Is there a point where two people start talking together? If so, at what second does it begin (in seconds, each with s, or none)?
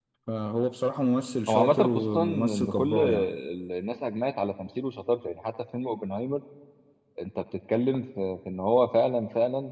1.5 s